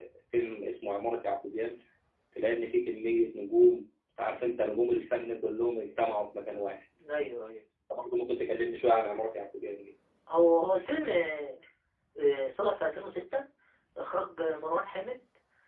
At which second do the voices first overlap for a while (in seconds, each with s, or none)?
none